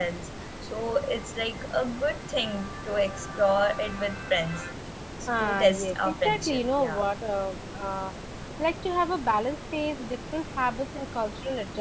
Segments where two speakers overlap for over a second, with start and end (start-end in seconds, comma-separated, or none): 5.4-7.0